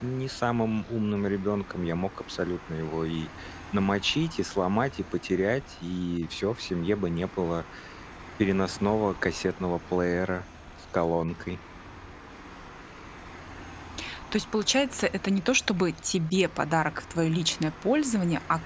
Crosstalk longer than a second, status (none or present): none